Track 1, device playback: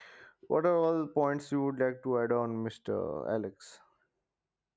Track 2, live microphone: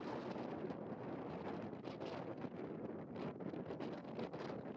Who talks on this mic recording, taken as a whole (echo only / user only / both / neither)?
neither